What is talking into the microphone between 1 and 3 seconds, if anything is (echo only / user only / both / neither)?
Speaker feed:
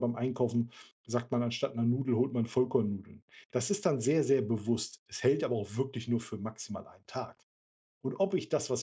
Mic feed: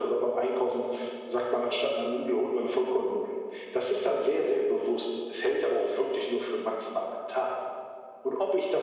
echo only